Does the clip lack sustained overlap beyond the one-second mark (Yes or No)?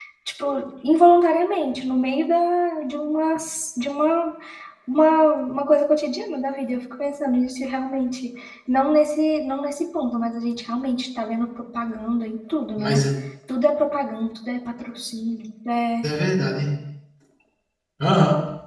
Yes